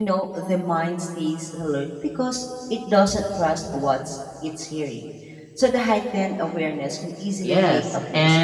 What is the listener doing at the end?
taking over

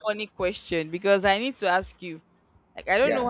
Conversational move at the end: listening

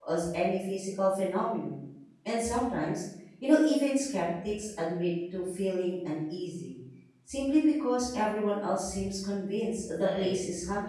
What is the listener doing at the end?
taking over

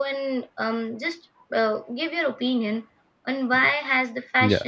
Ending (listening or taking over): listening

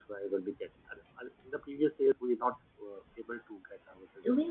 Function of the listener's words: taking over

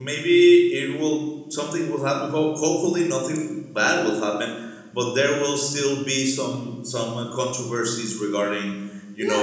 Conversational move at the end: taking over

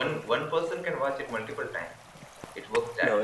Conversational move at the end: taking over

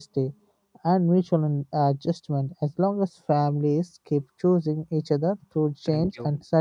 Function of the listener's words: listening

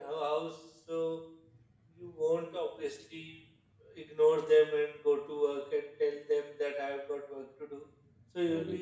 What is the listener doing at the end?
listening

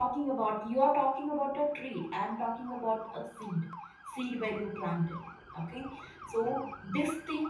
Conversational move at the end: listening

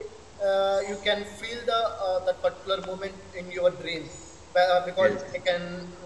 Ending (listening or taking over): listening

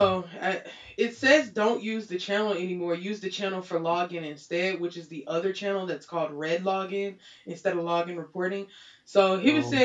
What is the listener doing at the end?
listening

